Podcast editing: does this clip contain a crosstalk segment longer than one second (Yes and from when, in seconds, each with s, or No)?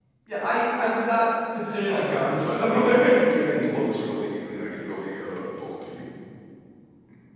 Yes, from 1.9 s